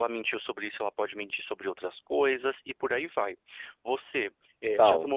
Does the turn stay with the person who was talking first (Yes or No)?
Yes